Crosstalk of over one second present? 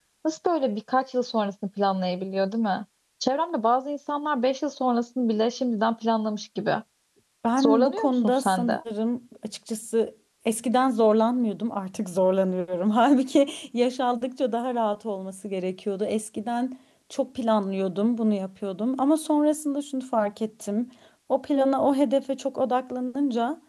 Yes, from 7.6 s

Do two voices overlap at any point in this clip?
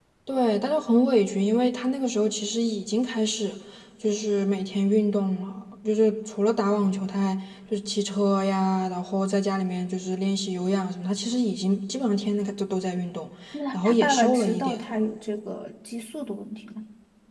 Yes, from 13.7 s

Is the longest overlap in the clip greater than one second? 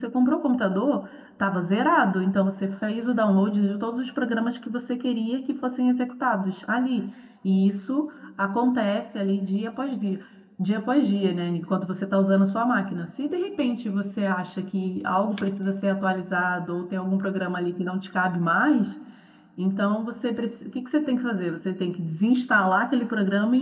No

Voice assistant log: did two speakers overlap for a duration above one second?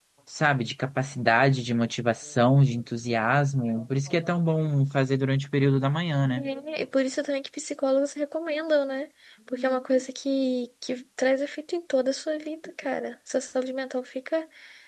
No

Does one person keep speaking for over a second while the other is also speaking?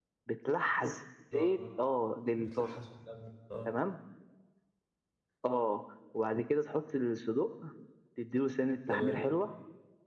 No

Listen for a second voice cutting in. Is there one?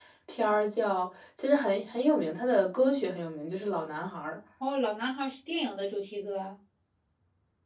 No

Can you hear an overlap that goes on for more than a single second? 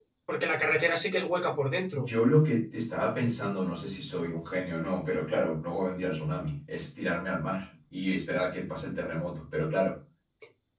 No

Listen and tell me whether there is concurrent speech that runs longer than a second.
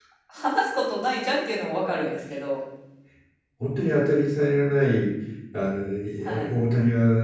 No

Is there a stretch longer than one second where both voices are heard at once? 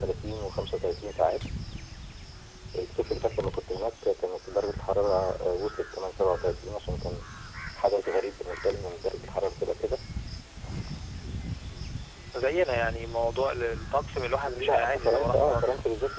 Yes, from 14.4 s

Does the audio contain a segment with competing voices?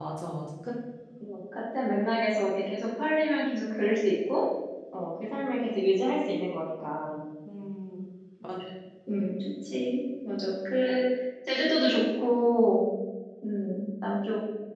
No

